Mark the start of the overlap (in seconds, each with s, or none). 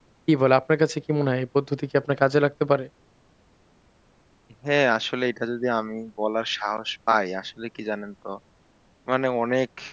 none